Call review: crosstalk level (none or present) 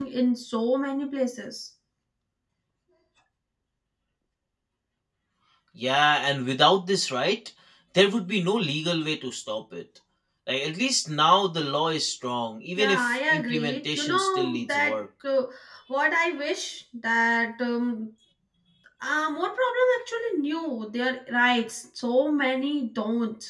present